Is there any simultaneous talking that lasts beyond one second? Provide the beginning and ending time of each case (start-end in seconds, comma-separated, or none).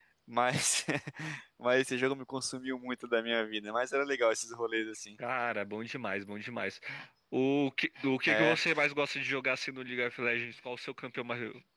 none